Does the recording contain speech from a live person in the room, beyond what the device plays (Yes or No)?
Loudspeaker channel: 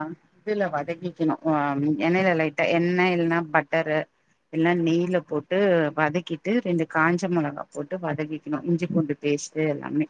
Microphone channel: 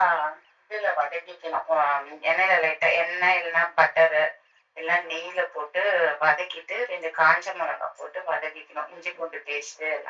No